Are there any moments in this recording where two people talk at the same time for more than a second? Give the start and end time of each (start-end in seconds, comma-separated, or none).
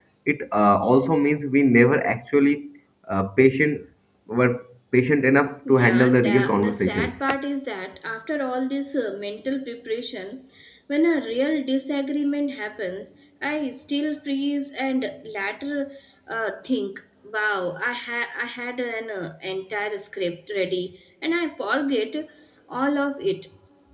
5.7-7.2